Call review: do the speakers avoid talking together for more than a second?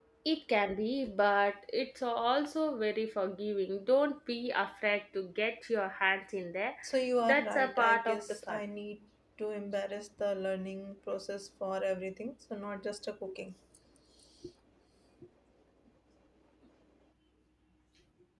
No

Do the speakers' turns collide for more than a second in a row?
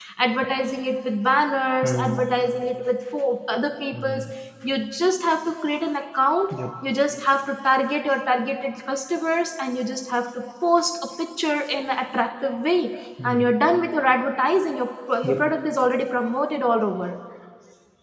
No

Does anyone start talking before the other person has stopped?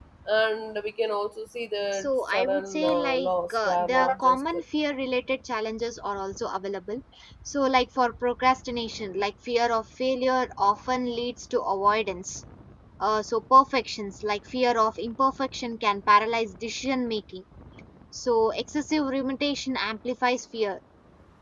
Yes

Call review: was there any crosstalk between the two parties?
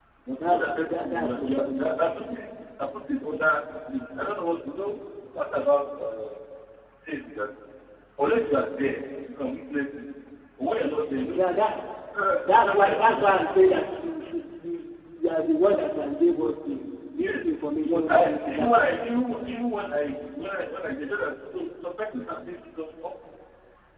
Yes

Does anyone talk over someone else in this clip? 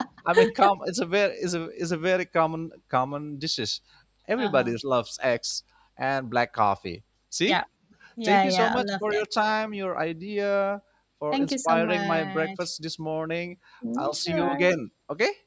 Yes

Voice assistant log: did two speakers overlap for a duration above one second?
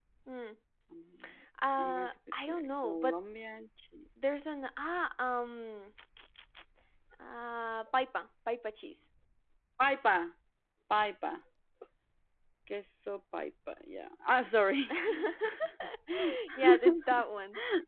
Yes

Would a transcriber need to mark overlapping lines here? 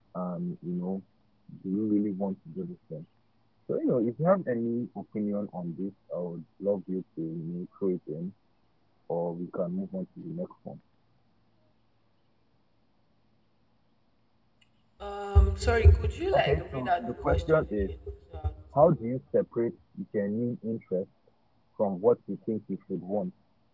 Yes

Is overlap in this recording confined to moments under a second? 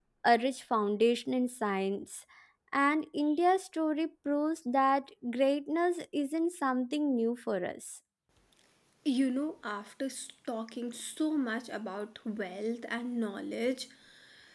Yes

